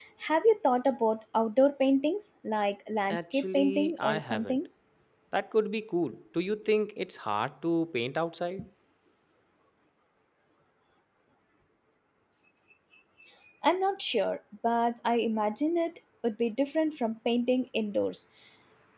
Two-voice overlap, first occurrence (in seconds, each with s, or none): 3.1 s